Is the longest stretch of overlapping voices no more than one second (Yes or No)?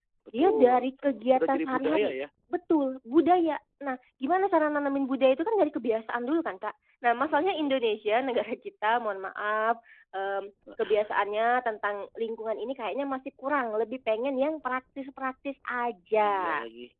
No